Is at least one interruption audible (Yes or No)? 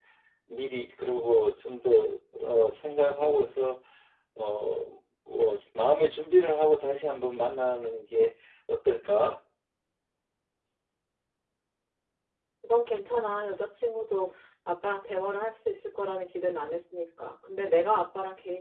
No